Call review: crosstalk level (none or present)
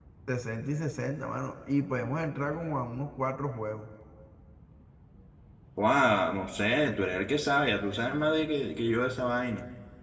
none